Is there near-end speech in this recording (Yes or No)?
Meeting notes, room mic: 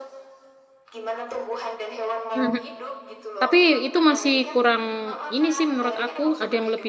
Yes